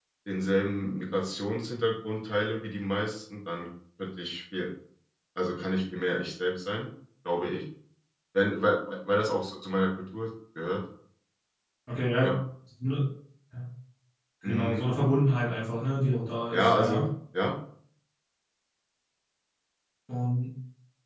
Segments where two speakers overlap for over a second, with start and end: none

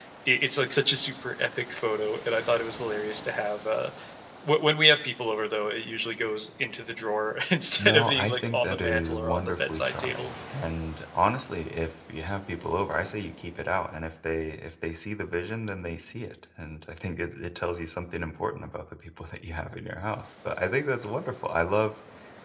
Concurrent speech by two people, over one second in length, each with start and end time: 7.8-10.3

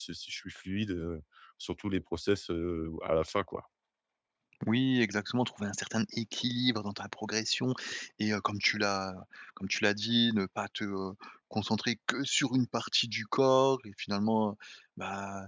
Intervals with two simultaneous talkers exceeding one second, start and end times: none

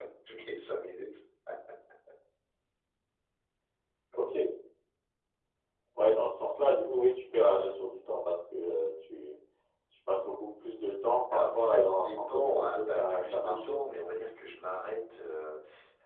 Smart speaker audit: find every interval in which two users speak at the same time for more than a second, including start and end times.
11.3-13.8

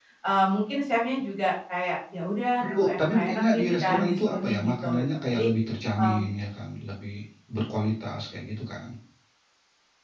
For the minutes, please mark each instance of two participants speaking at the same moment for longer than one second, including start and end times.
2.6-5.5

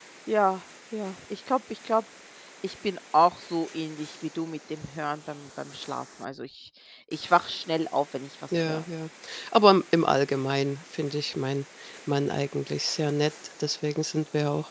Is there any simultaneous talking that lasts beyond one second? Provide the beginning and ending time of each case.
none

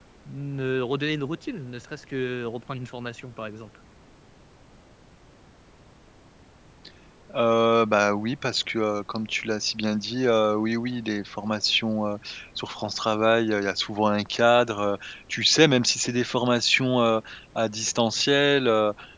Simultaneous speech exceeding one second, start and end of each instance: none

